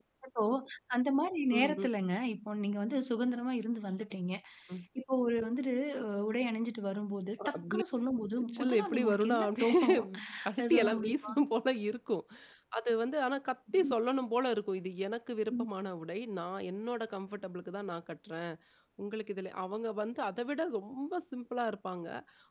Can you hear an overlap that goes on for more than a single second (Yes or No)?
Yes